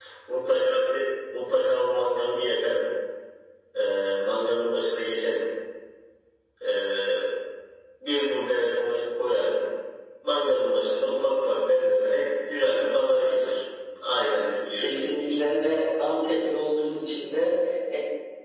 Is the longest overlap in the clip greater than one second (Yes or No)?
No